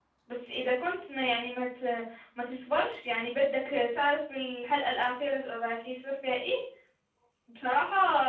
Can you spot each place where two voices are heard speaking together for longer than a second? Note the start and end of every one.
none

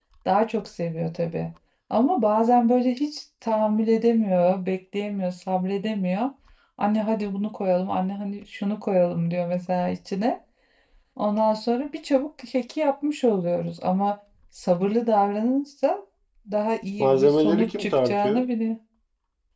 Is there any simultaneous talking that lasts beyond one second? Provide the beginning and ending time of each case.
17.0-18.5

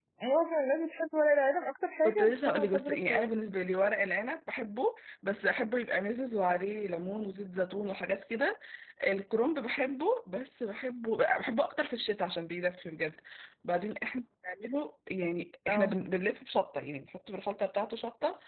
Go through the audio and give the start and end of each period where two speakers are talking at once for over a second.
2.0-3.4

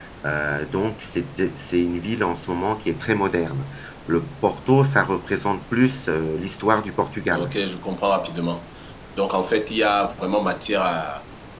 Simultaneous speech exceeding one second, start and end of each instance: none

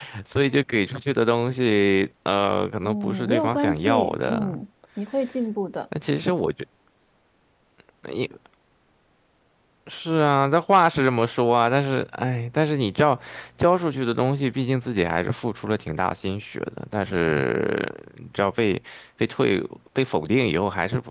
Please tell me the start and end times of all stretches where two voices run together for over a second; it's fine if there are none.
2.8-4.6

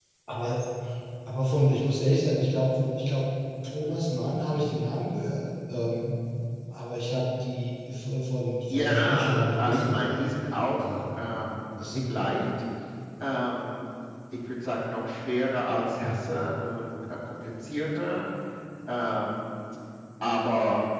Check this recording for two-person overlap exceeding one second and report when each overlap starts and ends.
8.7-10.2

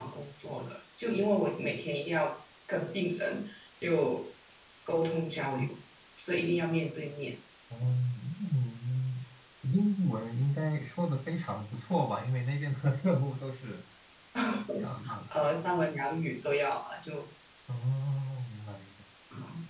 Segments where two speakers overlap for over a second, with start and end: none

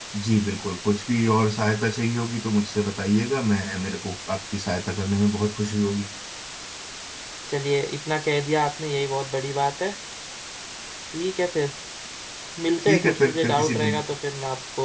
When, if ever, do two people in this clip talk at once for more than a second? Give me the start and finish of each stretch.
12.8-14.0

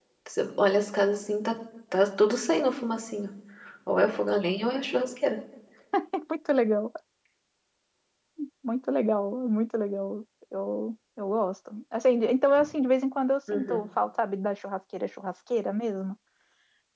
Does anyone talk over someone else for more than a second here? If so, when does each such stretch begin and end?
none

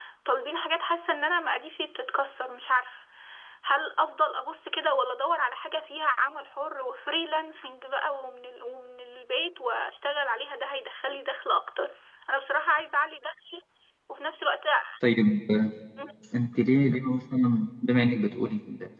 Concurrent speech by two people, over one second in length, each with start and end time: none

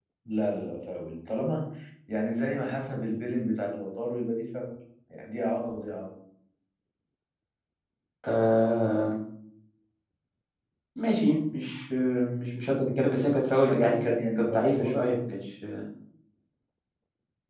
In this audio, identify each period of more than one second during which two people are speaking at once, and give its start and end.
13.6-15.1

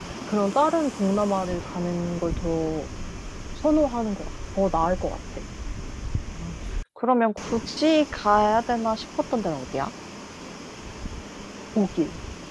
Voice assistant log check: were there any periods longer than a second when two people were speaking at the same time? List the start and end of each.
none

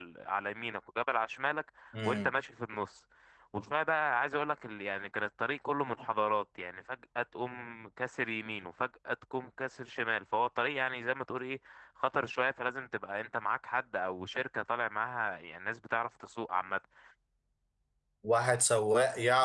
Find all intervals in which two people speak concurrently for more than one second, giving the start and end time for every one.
none

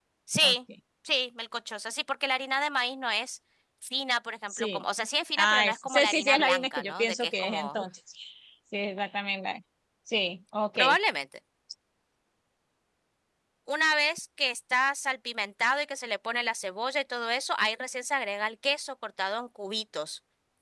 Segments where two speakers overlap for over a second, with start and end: 5.4-7.8

